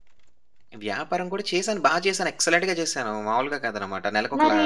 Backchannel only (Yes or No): Yes